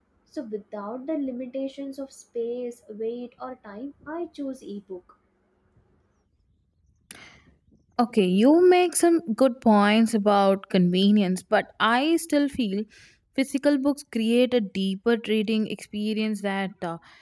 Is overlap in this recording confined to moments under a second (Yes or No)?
Yes